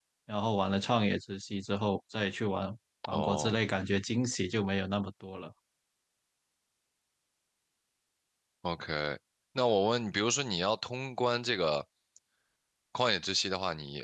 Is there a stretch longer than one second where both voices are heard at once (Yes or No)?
No